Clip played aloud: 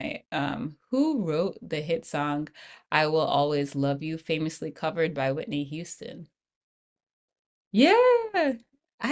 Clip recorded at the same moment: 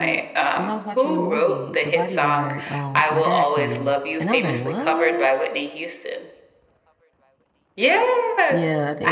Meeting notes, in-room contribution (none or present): present